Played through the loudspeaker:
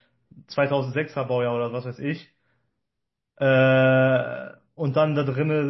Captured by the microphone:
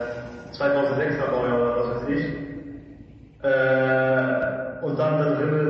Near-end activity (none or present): none